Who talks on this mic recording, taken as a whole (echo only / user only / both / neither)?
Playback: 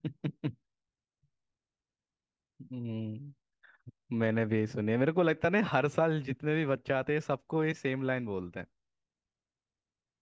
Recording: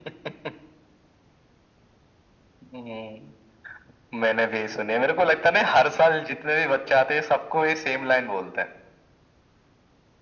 echo only